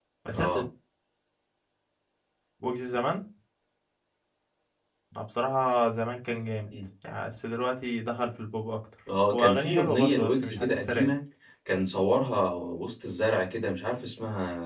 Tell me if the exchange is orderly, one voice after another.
No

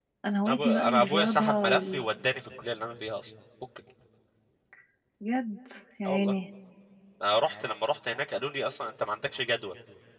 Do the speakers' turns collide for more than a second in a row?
Yes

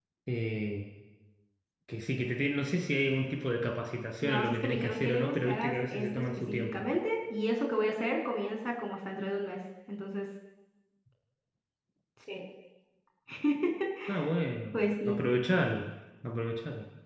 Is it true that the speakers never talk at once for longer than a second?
No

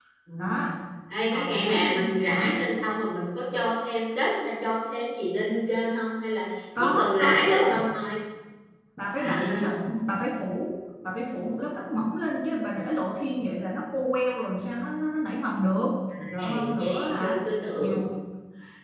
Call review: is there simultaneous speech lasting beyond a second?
Yes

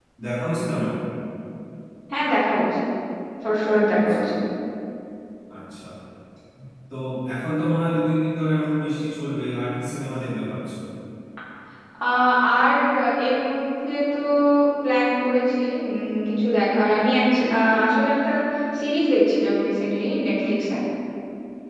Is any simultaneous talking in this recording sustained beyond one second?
No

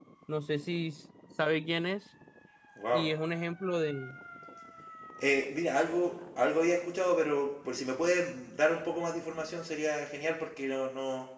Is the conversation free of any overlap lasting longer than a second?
Yes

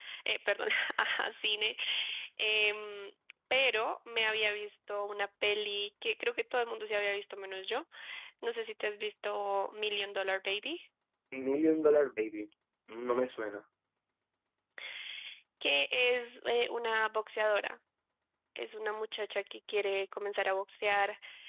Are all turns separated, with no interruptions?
Yes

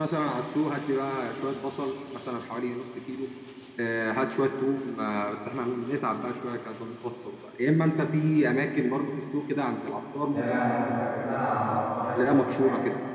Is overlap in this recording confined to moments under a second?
No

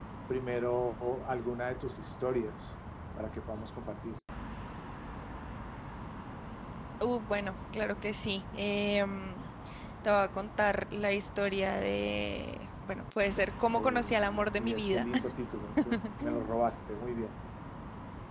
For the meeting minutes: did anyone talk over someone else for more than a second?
Yes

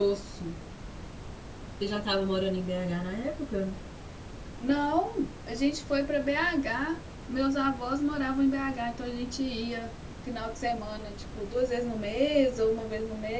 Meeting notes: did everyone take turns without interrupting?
Yes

